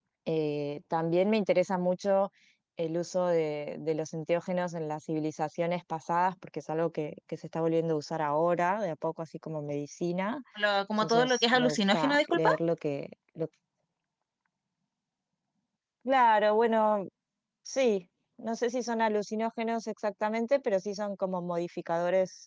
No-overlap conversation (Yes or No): No